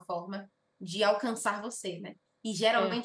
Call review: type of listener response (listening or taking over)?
listening